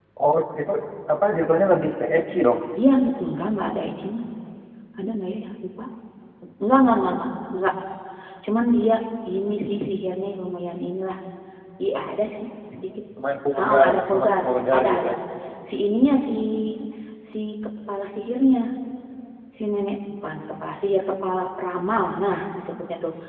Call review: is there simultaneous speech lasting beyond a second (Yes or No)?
Yes